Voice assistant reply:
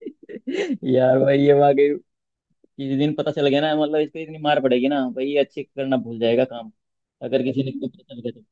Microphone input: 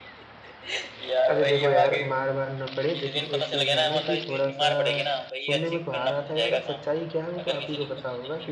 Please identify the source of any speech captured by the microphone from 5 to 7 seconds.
both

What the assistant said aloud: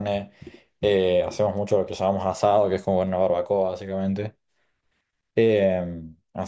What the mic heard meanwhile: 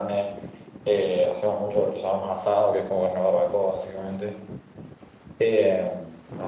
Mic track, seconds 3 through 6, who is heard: echo only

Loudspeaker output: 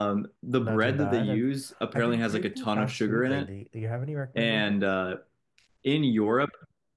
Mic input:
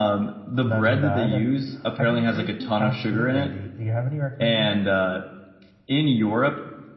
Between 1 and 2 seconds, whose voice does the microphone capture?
echo only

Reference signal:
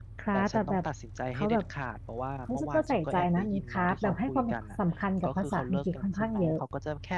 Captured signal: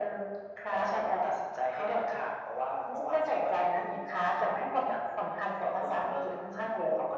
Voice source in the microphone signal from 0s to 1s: echo only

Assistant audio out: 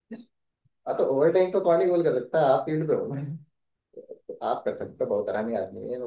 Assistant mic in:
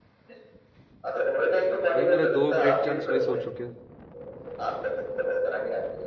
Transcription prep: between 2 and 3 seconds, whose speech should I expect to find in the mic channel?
both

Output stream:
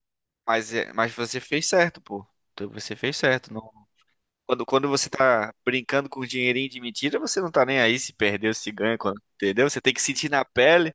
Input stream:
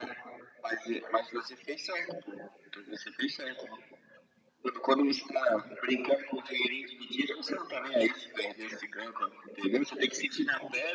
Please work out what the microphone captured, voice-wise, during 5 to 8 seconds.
echo only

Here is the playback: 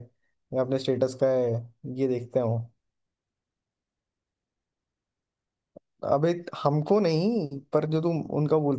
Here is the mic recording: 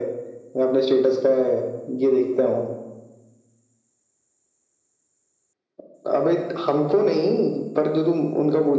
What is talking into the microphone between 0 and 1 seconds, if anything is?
echo only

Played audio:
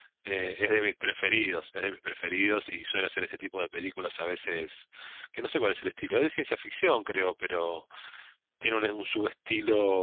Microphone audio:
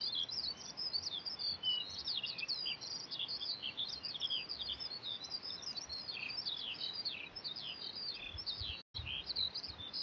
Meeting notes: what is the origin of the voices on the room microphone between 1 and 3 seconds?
neither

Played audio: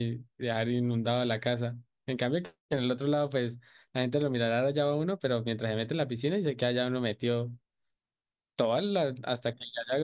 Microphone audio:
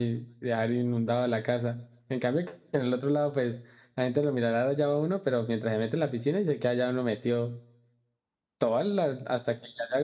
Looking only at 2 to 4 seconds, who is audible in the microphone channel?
echo only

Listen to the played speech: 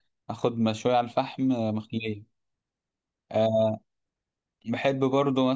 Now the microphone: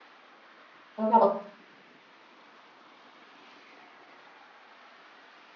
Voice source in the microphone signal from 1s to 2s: user only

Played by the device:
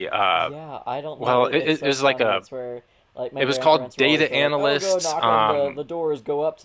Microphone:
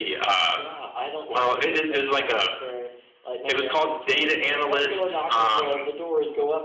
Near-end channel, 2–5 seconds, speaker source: echo only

